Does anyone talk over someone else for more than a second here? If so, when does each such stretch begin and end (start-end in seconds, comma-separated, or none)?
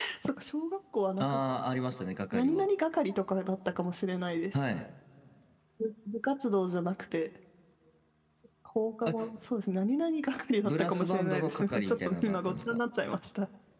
10.6-12.8